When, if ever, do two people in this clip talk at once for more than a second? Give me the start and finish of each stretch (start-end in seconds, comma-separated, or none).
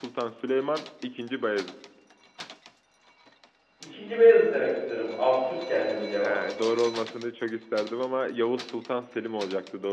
none